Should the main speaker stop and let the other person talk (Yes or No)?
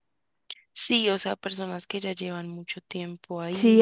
Yes